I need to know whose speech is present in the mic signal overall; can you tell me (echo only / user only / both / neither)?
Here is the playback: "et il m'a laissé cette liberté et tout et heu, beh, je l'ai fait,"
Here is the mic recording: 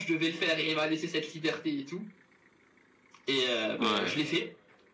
both